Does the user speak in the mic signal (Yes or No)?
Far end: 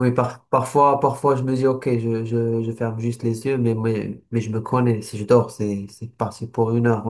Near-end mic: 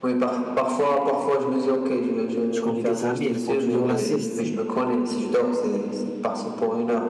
Yes